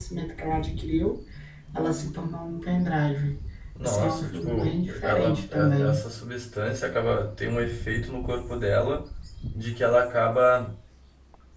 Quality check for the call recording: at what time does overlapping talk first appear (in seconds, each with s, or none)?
3.8 s